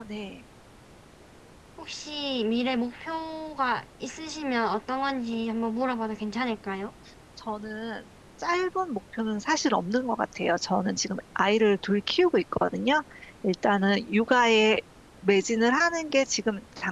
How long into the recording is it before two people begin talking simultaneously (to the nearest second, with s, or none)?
none